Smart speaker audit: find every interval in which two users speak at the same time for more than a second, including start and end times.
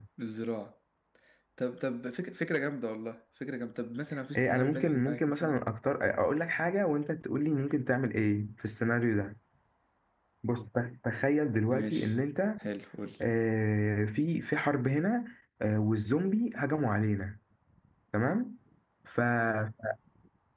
4.3-5.6

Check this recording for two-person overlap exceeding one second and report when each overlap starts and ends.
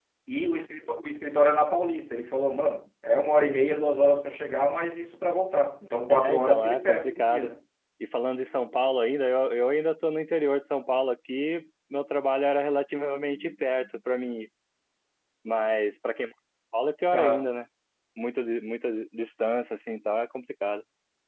6.2-7.5

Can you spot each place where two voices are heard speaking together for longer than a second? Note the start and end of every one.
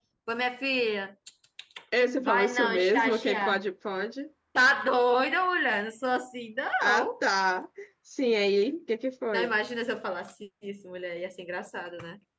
2.2-3.6

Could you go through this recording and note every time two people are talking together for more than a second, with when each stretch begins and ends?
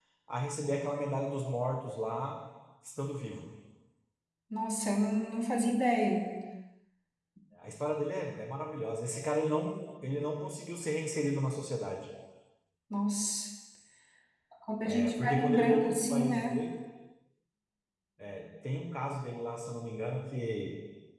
14.9-16.6

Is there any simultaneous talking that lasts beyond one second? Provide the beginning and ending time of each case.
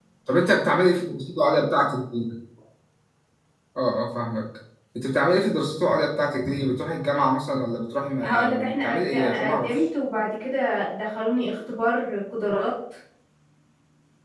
8.2-9.7

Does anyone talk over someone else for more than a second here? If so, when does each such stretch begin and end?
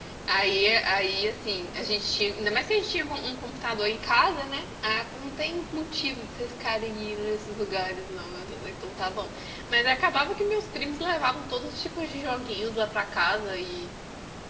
none

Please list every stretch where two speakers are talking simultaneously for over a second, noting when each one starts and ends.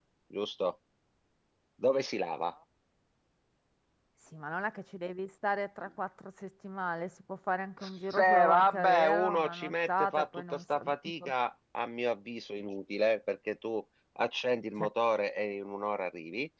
8.1-10.8

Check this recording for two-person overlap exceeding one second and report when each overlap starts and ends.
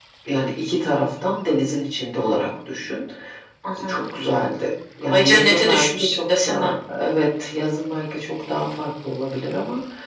5.1-6.7

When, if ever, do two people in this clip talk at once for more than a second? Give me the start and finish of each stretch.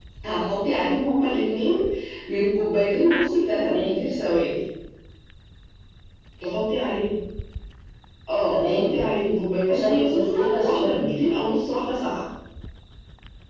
9.7-11.1

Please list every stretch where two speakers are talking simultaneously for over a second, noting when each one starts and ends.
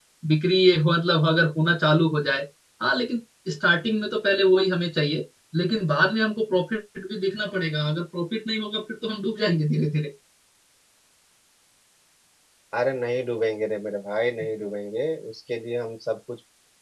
none

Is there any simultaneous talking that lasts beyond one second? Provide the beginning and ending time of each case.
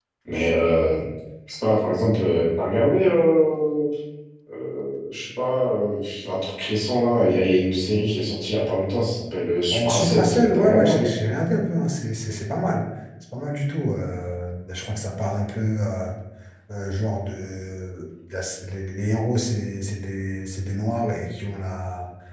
9.7-11.1

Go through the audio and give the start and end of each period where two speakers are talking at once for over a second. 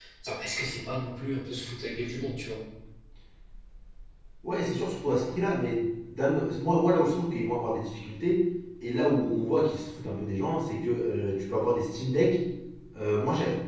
none

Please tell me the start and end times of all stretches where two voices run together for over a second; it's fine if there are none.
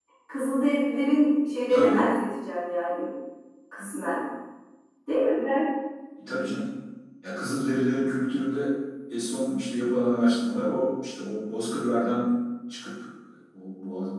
none

